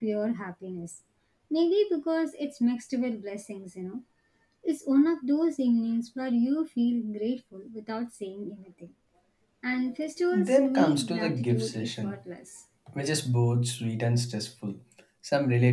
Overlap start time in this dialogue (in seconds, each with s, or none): 10.4 s